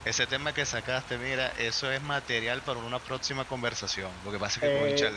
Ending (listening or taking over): listening